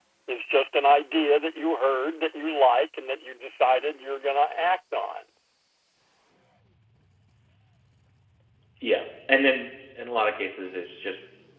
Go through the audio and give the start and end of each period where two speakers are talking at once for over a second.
none

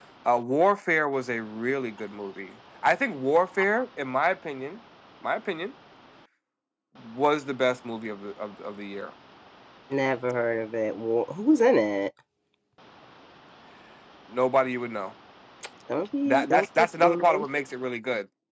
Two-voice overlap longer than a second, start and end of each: 16.2-17.5

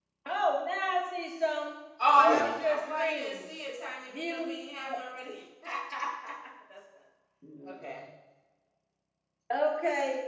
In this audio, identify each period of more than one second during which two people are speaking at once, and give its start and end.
2.2-3.4

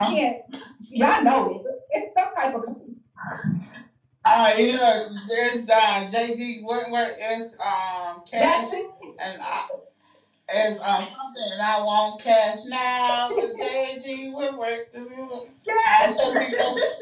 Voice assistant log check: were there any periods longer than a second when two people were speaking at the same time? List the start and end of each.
none

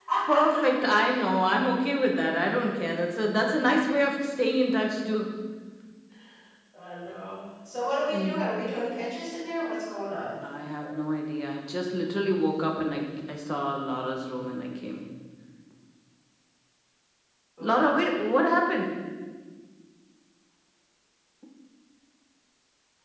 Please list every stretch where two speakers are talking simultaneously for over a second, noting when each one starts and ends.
none

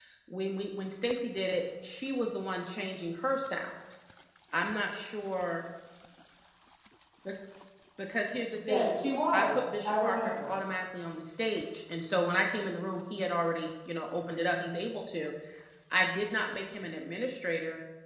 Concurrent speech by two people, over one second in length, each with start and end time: 9.3-10.6

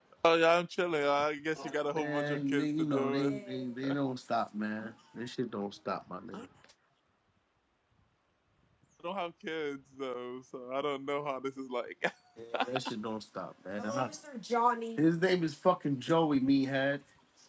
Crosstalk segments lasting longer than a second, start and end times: 1.9-3.3

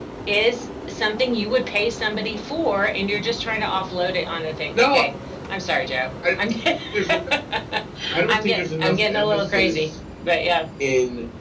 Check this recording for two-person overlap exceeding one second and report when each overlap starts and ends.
8.3-9.8

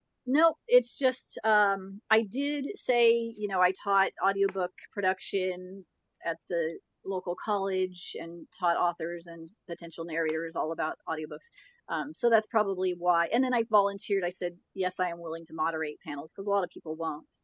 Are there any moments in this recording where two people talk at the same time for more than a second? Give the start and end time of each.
none

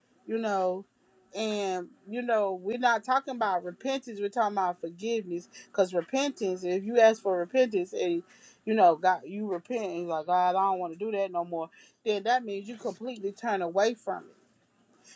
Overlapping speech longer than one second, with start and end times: none

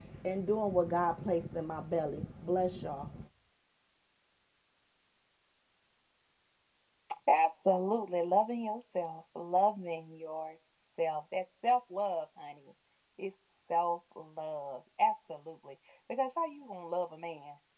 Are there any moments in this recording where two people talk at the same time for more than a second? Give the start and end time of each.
none

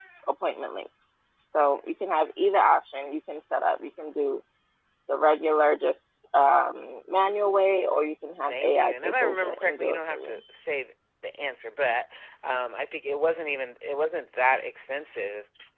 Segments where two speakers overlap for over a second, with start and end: 8.5-10.3

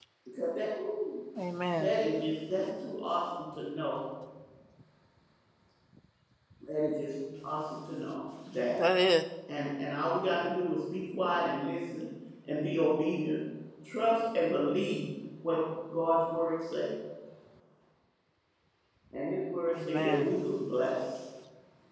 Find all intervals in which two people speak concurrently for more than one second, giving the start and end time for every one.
none

